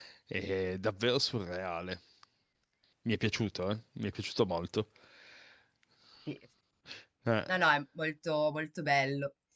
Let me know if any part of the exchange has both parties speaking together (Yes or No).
No